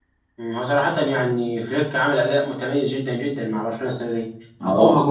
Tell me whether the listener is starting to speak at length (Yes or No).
No